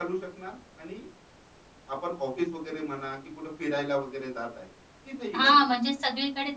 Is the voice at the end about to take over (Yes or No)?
Yes